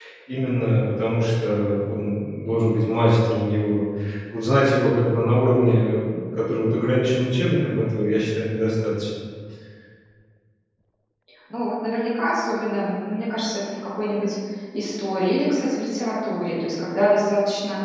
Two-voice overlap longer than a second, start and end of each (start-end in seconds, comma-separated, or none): none